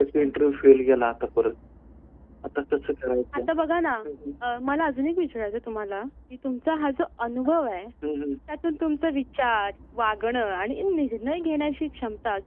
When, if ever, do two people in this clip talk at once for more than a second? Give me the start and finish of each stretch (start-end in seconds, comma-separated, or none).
none